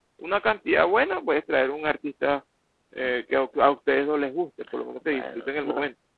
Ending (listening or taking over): taking over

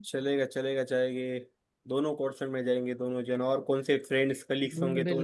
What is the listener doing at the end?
taking over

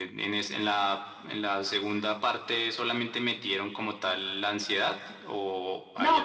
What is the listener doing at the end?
taking over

